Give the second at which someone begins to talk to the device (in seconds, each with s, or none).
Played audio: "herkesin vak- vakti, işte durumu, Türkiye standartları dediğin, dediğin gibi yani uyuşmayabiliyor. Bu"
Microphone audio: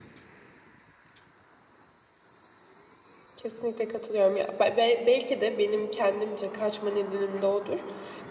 3.4 s